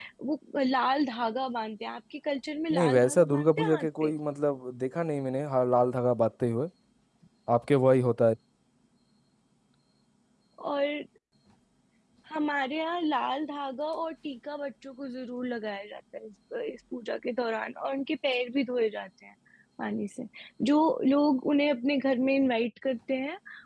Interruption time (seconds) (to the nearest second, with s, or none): 3 s